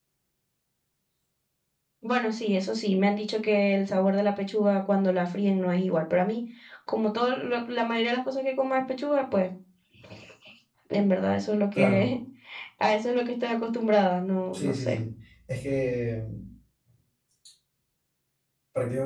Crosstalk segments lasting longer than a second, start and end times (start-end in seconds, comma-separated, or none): none